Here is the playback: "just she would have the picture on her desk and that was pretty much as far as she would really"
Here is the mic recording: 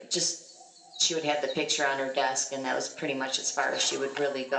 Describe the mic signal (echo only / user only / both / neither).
echo only